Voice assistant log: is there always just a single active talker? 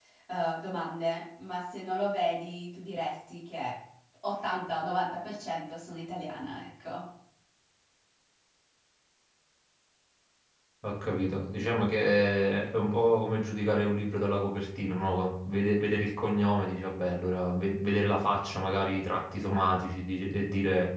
Yes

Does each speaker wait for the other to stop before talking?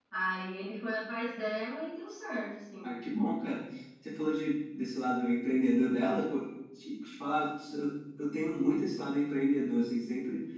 Yes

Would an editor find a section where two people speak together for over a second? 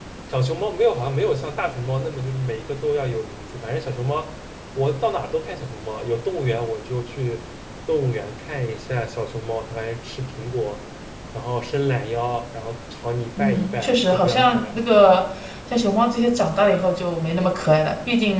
Yes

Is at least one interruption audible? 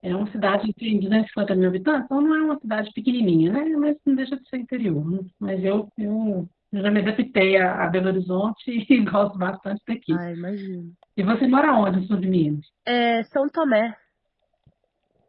No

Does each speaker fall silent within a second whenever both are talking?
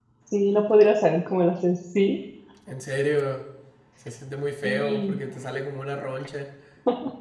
Yes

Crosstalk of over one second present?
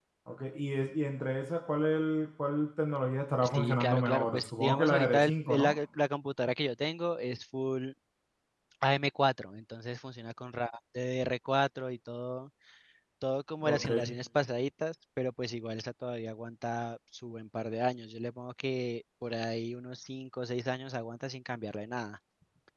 Yes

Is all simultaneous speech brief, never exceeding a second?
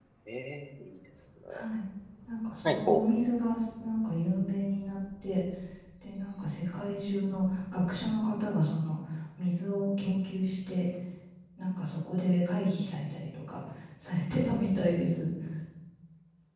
Yes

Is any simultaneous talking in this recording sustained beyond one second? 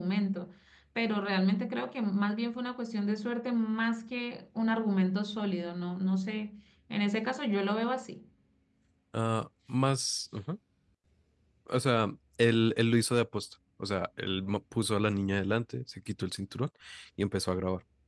No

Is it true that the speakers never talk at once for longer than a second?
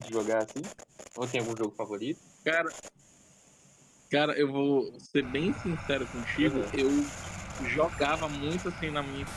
Yes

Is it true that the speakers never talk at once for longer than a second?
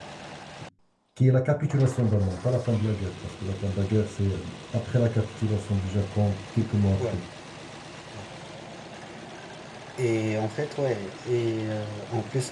Yes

